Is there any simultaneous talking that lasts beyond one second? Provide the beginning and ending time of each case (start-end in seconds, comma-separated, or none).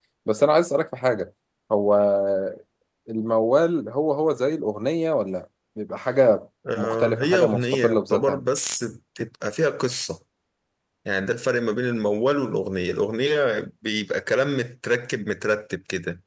6.8-8.4